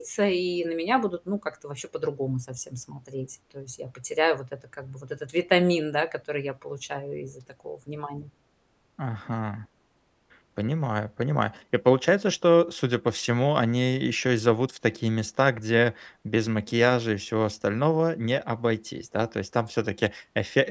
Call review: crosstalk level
none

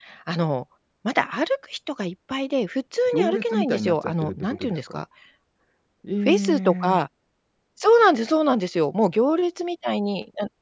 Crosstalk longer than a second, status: present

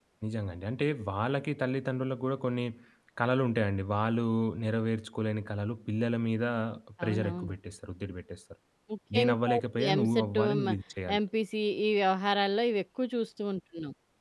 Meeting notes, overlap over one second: present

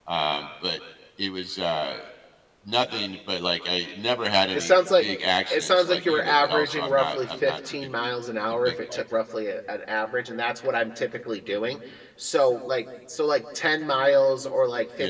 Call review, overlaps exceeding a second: present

